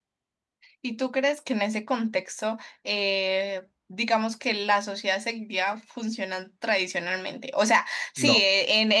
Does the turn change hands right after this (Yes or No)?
No